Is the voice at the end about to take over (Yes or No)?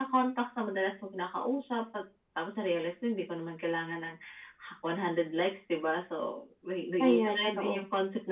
No